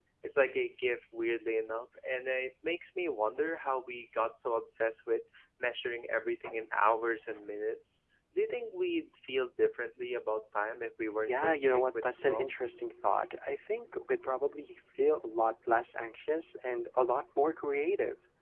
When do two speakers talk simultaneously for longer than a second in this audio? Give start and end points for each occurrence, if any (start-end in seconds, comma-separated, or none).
11.2-12.9